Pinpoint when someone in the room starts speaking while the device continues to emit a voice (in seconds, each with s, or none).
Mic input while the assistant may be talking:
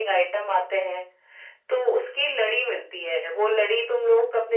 none